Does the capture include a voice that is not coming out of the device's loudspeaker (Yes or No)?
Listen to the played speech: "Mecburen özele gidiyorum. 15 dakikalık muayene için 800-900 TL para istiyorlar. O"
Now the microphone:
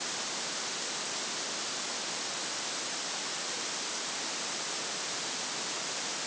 No